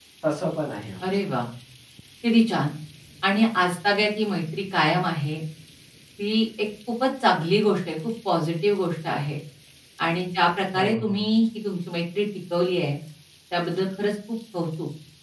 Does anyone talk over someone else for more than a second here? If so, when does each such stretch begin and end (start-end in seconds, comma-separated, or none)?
none